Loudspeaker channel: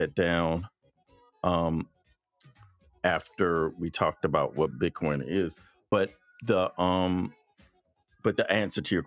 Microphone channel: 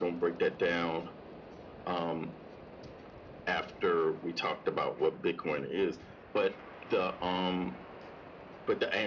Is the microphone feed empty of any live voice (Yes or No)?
Yes